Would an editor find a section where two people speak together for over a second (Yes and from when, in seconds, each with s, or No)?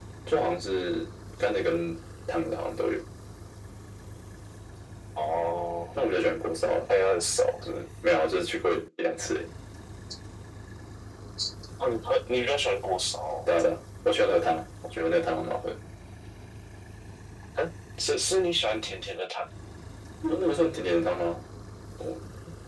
No